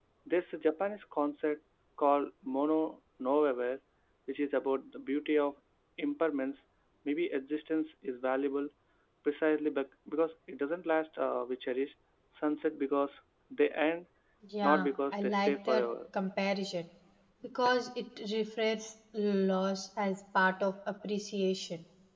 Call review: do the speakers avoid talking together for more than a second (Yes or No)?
No